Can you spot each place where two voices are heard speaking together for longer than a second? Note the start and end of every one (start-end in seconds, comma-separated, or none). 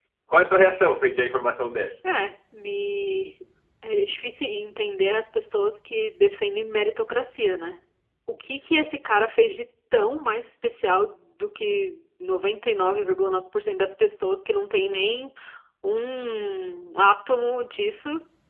none